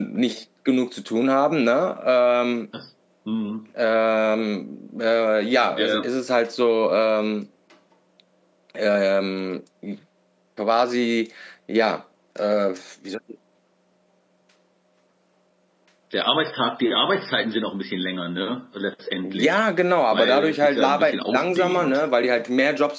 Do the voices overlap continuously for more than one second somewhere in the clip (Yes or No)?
Yes